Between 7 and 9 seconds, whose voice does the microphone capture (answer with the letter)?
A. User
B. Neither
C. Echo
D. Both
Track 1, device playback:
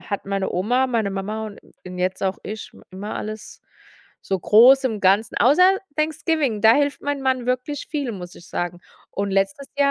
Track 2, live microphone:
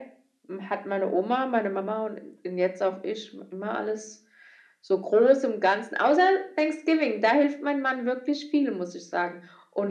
C